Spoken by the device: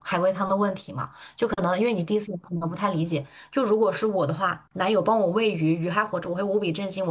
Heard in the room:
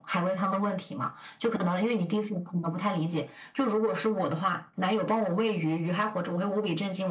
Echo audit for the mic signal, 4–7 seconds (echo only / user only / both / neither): echo only